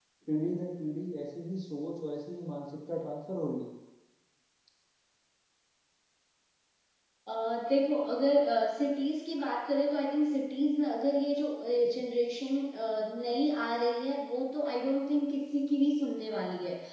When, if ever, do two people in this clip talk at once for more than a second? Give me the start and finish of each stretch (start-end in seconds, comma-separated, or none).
none